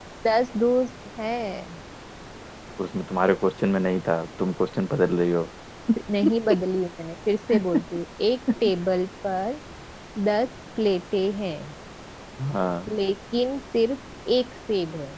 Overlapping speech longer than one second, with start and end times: none

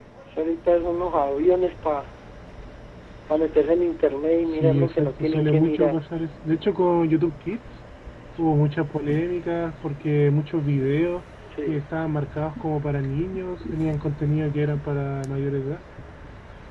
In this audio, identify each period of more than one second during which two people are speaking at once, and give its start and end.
4.5-6.0

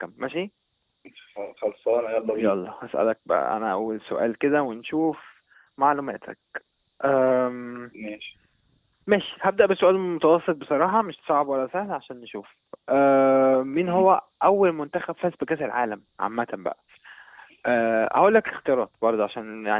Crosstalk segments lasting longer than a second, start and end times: none

